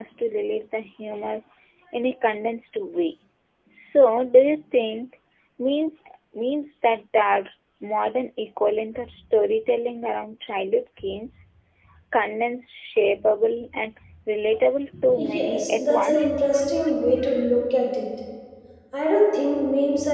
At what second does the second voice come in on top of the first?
15 s

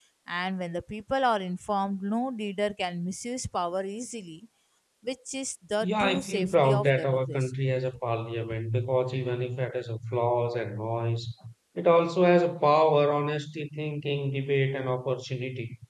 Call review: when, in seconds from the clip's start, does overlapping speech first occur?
6 s

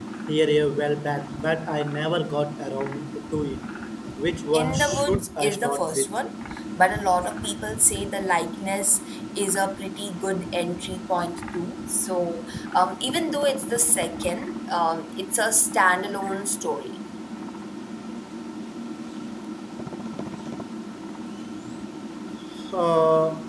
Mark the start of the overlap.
5 s

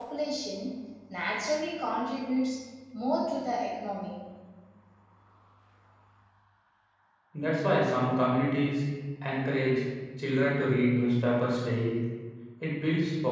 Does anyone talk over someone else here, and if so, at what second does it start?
none

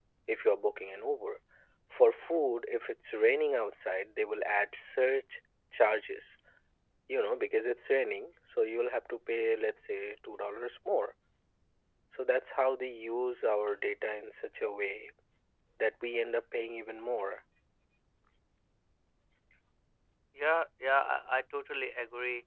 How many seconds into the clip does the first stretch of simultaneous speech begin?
none

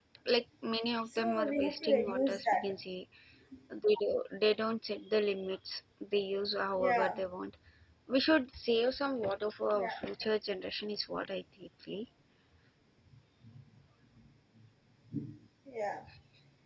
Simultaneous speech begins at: 1 s

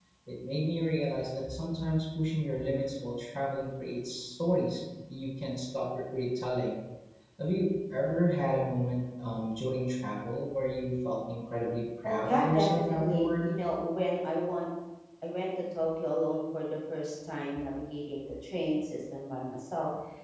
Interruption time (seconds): 12 s

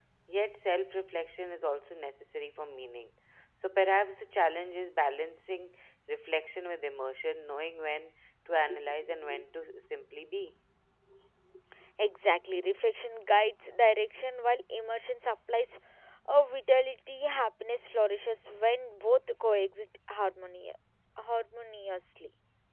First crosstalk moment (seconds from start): none

